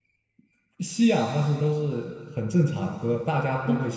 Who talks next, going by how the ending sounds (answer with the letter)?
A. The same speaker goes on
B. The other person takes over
A